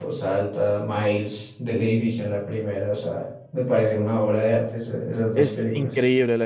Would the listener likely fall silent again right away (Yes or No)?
No